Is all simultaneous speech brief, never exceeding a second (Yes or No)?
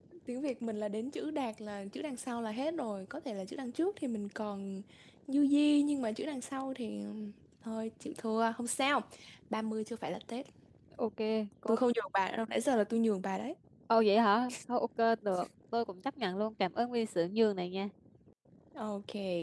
Yes